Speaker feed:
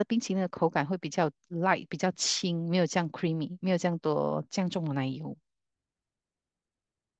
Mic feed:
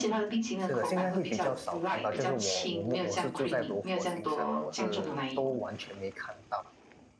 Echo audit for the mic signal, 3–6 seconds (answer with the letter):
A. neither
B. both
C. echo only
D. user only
B